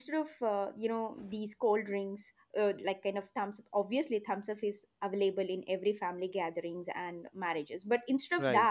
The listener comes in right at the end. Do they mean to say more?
No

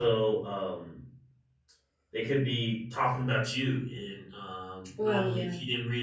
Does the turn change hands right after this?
No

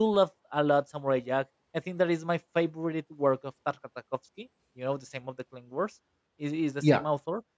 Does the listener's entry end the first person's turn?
No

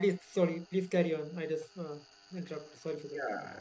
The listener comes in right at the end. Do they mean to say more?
Yes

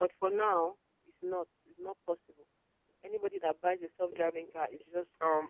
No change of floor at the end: No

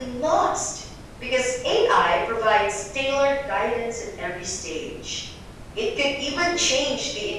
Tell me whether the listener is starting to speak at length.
No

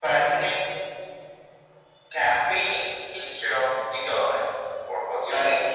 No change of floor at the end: No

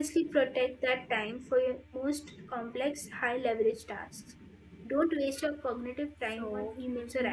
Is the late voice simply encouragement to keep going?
No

